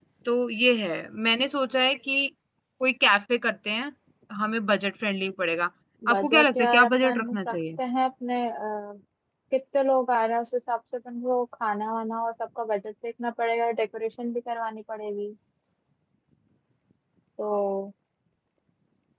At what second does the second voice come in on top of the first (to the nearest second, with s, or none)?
6 s